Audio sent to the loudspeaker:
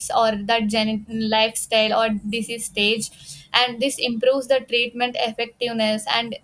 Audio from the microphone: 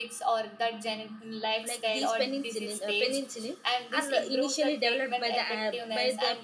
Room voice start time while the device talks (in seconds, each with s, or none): 1.6 s